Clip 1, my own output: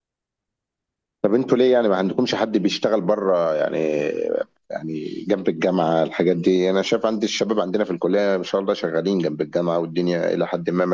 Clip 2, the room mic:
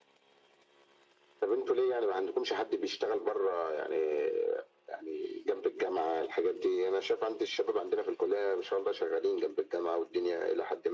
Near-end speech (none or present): none